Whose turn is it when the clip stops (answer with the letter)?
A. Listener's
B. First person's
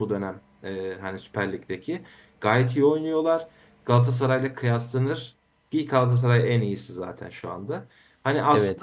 B